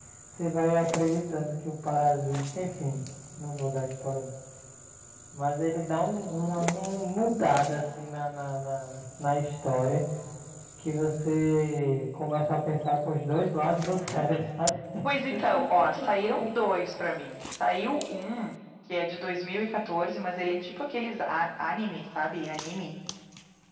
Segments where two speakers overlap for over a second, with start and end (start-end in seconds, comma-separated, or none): none